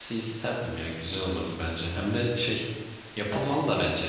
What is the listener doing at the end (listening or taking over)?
listening